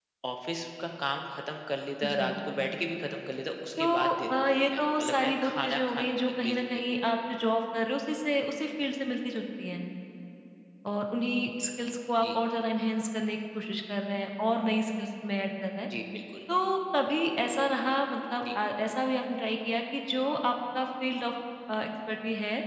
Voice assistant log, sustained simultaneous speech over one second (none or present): present